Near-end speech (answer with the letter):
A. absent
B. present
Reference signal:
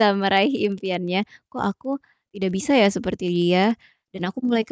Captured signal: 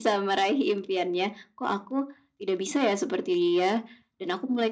A